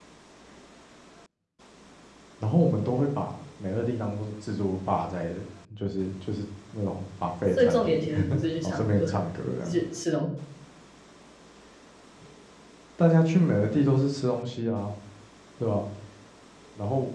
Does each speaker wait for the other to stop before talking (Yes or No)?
No